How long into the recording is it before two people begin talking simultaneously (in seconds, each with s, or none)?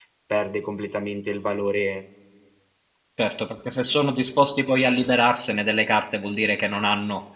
none